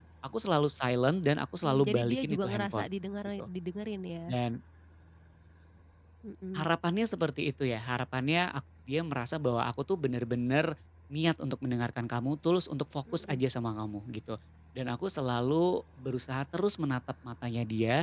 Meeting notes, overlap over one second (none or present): present